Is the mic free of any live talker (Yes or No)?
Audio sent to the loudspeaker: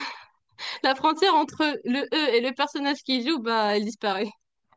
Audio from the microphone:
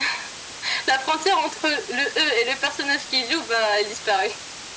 Yes